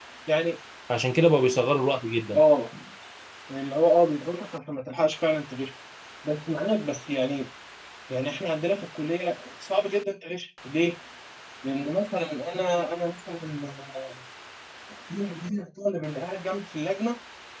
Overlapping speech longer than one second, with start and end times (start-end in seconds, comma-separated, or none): none